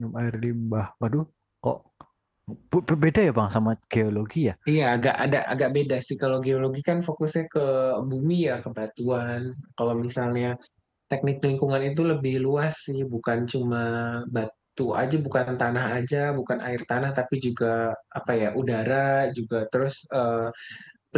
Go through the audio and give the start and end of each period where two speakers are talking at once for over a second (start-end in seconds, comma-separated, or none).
none